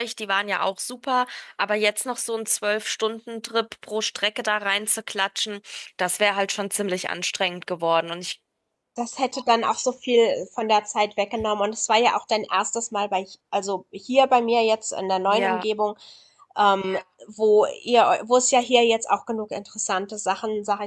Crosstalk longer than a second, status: none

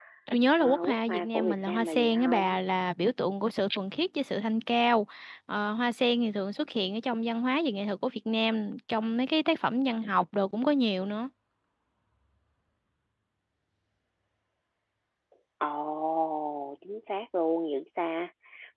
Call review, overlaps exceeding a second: present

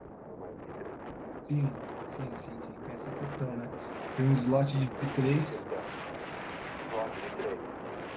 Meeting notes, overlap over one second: none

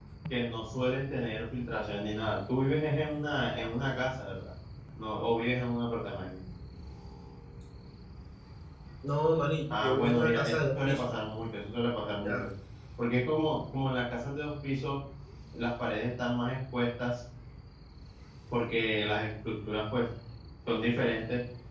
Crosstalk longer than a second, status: present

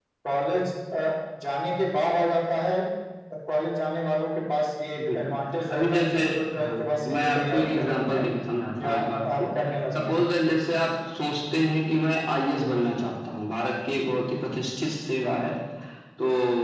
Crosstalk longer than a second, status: present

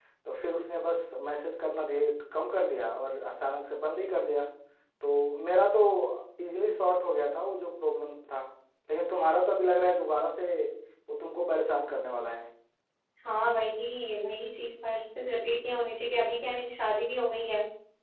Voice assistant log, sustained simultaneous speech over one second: none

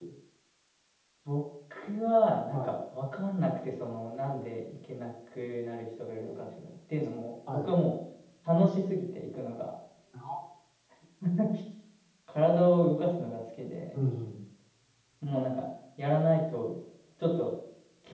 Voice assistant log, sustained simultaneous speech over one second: none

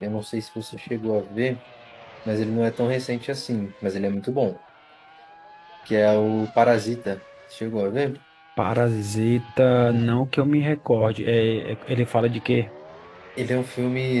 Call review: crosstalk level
none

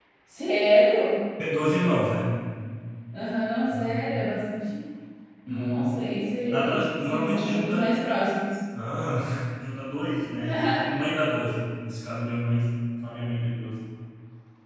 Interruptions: present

